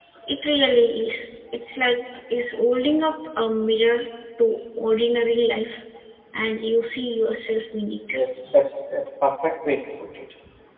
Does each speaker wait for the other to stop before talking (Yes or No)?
Yes